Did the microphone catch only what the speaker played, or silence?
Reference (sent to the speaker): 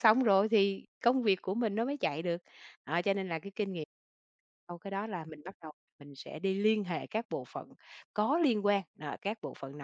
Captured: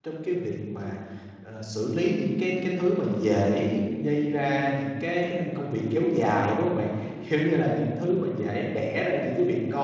No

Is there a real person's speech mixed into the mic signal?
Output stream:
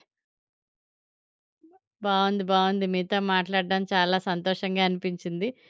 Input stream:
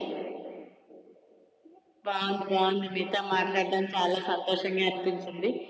No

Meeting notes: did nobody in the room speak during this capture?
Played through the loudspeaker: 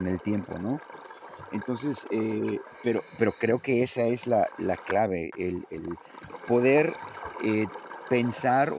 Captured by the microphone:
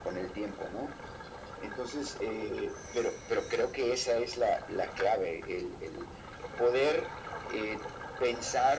Yes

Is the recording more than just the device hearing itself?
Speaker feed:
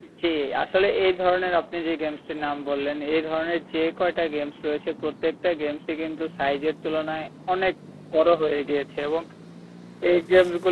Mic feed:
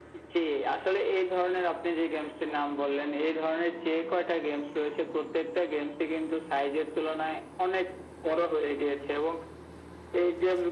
No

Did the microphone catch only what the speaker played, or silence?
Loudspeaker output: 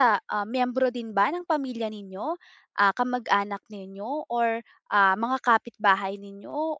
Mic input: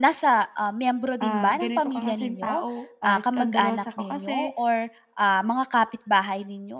No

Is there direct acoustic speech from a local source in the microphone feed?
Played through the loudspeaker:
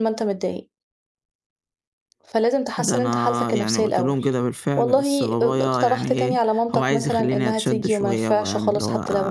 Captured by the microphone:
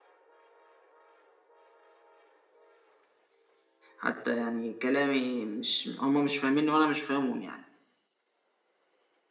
Yes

